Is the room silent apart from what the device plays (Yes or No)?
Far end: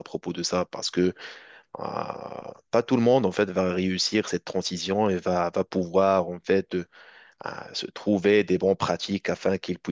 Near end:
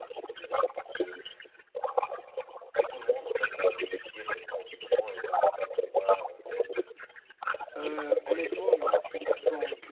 No